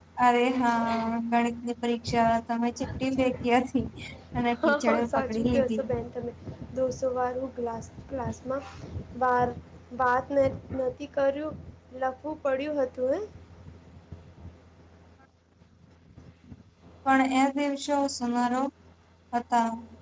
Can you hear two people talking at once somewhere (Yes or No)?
Yes